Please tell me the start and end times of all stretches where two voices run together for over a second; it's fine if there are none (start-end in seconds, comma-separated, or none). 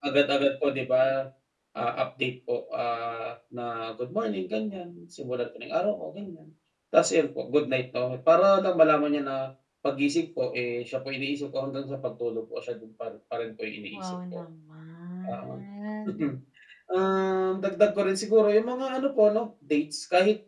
none